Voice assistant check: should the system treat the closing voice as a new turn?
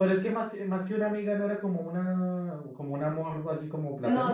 Yes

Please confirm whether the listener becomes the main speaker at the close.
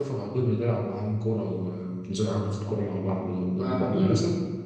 Yes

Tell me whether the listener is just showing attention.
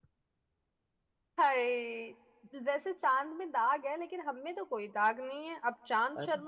Yes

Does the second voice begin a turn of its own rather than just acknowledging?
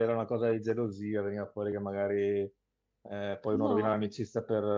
No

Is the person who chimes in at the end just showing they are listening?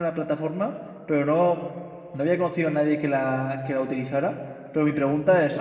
Yes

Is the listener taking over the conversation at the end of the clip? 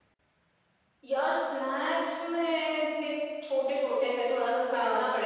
No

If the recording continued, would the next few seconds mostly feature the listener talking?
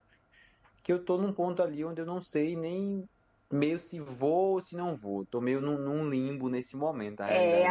Yes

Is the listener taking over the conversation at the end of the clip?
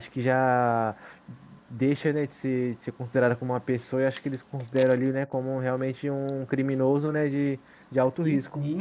Yes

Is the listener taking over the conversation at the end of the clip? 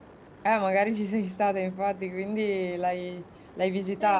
Yes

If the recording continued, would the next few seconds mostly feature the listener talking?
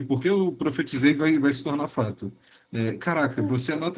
No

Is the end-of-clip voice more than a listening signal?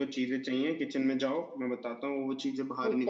Yes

